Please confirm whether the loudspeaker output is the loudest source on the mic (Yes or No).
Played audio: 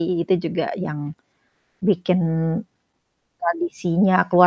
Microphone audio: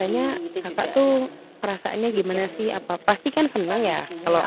No